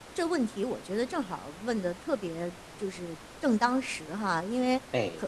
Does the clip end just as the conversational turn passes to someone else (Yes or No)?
No